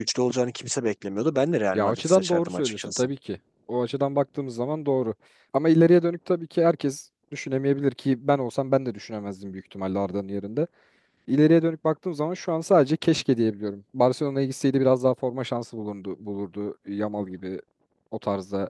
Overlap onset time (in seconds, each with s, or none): 1.7 s